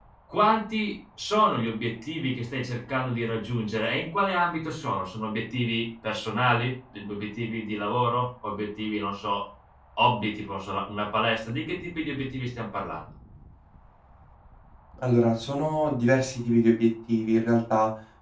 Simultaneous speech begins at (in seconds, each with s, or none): none